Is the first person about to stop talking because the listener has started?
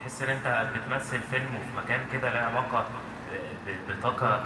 No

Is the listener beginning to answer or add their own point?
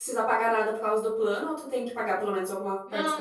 Yes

